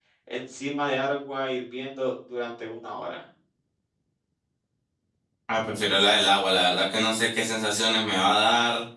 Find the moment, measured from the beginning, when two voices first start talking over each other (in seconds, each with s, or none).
none